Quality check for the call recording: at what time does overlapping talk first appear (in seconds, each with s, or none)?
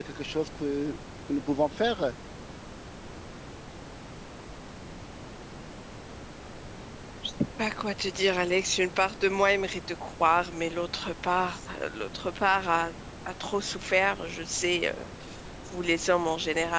none